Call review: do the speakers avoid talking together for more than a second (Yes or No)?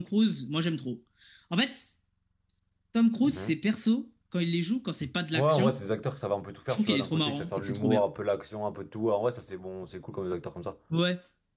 No